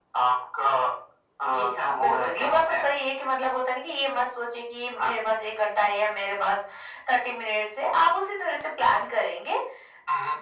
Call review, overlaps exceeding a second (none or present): present